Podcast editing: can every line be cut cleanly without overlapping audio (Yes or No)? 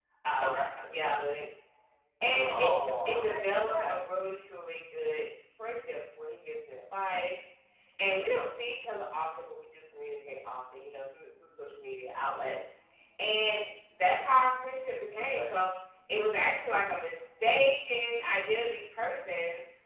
No